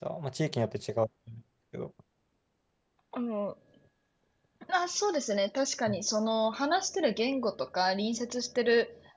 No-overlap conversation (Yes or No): Yes